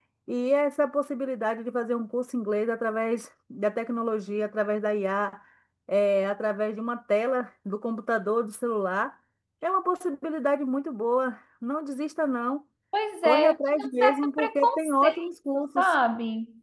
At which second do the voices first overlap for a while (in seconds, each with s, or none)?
13.2 s